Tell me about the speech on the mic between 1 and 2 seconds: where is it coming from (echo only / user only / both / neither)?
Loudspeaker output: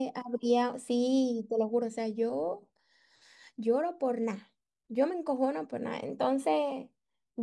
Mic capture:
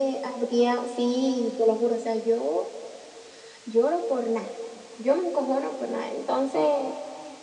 echo only